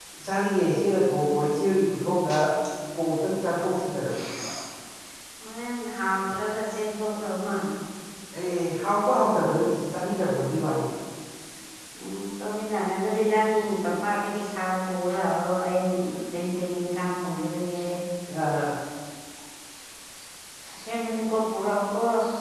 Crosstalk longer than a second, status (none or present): none